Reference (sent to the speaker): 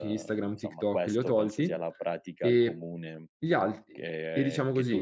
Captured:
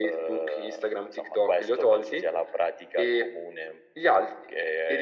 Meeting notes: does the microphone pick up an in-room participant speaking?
No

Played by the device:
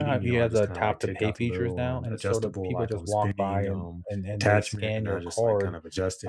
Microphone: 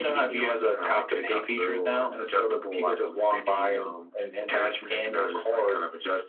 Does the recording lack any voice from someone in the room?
Yes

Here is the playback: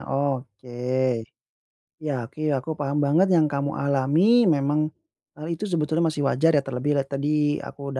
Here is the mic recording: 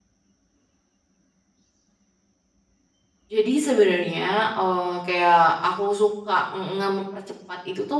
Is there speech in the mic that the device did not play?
Yes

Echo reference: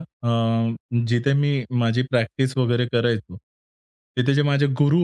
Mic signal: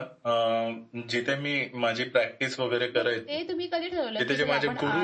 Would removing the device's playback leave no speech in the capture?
No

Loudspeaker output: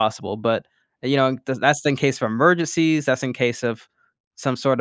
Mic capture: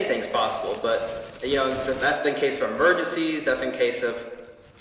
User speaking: No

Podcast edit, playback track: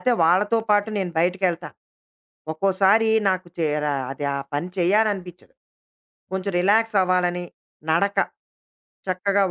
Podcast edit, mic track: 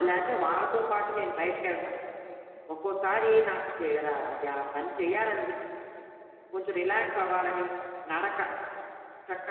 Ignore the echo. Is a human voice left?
No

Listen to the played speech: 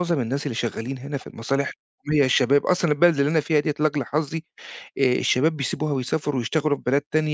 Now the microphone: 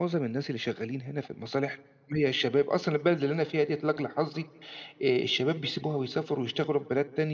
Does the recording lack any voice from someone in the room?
Yes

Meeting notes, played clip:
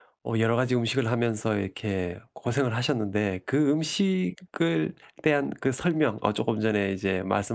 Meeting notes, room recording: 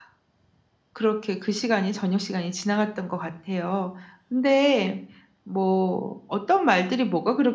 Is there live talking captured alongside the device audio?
Yes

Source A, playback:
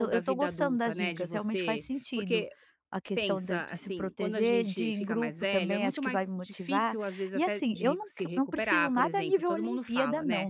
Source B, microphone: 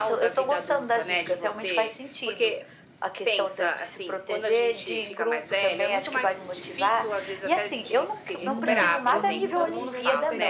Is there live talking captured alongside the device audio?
Yes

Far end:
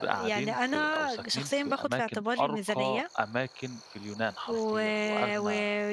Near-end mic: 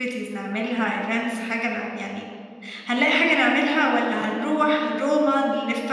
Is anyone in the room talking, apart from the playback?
Yes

